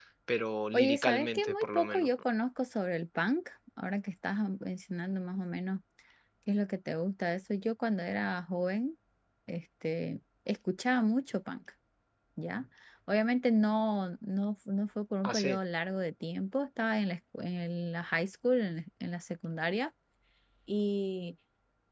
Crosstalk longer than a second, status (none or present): present